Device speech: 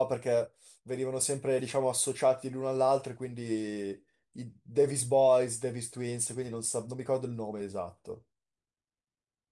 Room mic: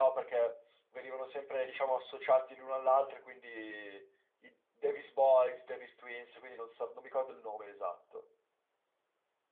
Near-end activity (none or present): none